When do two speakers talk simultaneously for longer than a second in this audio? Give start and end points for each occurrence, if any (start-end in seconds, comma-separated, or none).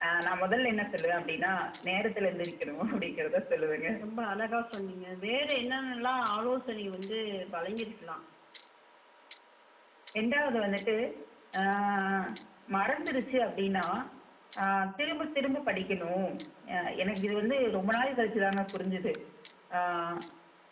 none